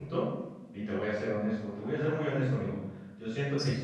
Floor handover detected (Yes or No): No